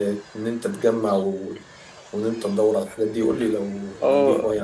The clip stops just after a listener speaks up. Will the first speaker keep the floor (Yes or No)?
No